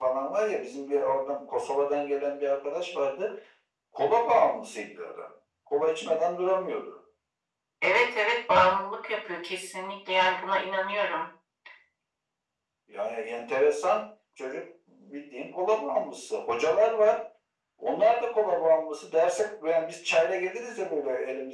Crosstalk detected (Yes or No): No